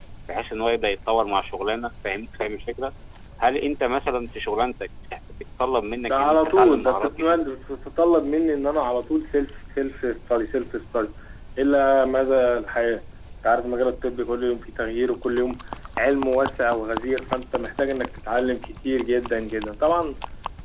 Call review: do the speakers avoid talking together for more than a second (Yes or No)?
No